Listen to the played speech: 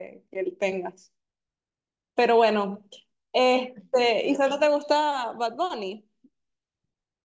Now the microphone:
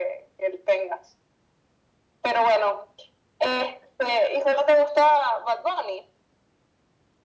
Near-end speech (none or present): none